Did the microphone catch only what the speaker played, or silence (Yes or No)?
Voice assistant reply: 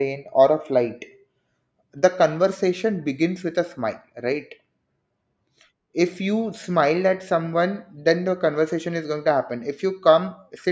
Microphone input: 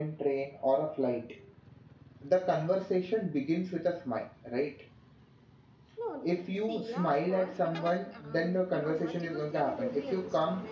No